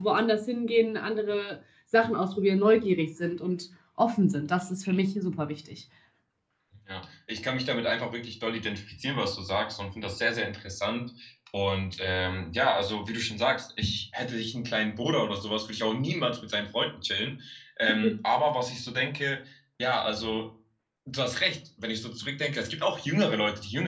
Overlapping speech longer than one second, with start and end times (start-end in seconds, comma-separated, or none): none